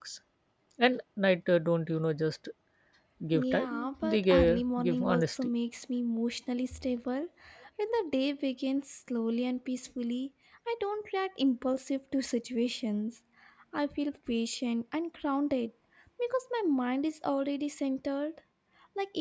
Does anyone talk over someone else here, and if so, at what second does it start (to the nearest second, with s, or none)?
3 s